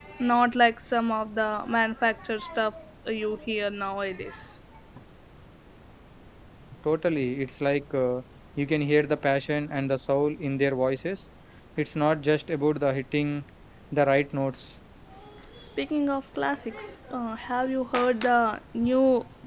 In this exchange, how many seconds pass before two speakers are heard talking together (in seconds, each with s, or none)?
none